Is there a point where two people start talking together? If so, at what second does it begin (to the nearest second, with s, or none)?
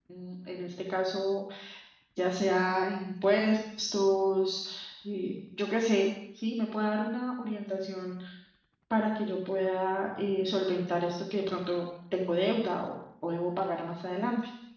none